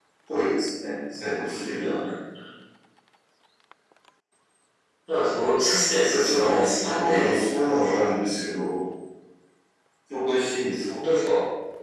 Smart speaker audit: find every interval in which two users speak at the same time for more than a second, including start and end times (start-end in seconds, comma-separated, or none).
6.1-7.3